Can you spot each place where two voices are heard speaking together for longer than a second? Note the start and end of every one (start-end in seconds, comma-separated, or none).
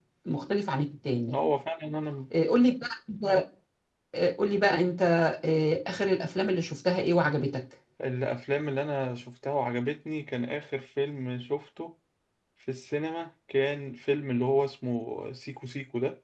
none